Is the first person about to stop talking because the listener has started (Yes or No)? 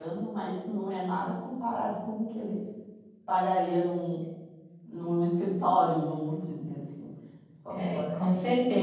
Yes